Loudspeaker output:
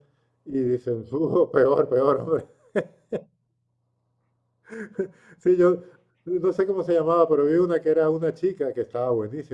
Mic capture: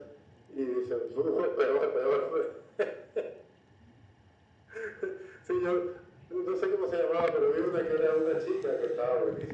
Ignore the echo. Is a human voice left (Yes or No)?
No